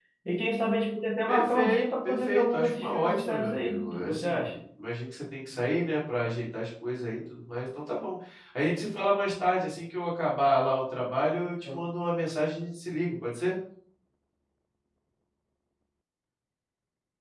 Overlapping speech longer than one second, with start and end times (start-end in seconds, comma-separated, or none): 1.3-4.5